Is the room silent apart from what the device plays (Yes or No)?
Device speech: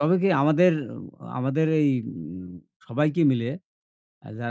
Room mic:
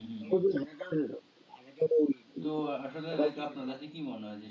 No